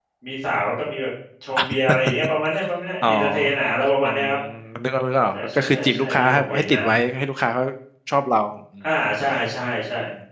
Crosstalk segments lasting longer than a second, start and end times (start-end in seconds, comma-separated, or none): 5.3-6.8